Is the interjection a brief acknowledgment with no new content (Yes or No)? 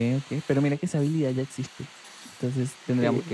Yes